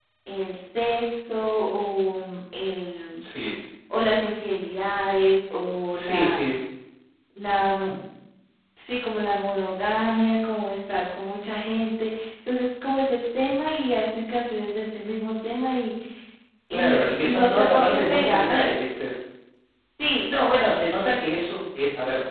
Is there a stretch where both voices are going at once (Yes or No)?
Yes